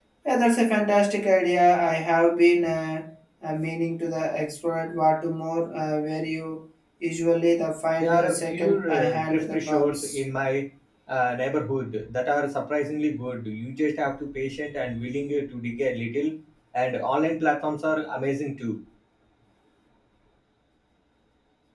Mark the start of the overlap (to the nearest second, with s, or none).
8 s